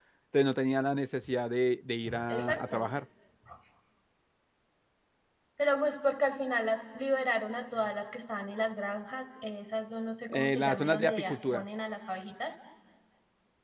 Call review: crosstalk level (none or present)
present